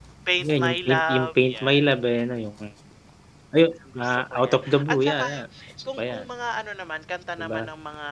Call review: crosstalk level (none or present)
present